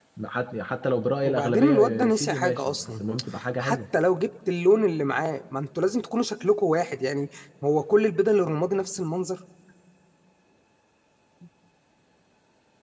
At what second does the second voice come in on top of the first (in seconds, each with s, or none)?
1.2 s